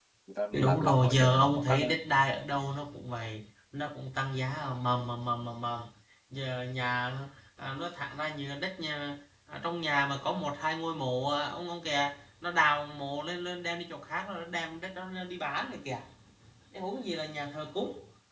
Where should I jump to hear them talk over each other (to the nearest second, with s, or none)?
1 s